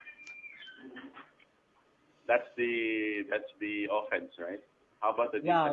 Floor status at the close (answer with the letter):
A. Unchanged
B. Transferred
B